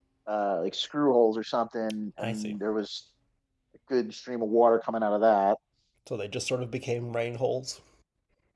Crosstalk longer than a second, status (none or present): none